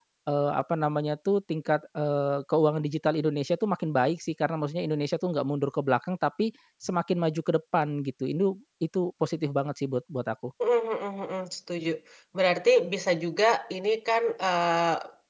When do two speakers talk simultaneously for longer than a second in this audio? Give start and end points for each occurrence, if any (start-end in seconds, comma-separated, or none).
none